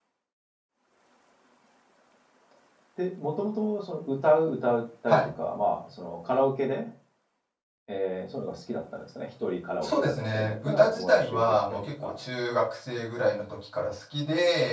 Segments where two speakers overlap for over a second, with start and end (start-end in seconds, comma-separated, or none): 9.8-12.2